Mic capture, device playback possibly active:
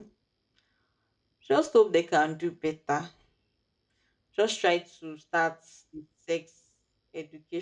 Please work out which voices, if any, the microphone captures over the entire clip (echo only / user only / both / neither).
user only